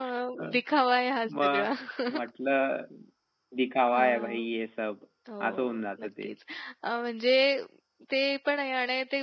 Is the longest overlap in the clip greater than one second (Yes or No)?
No